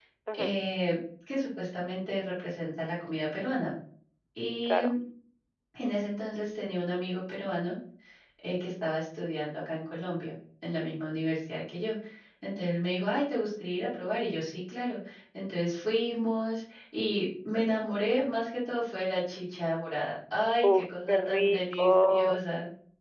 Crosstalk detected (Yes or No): Yes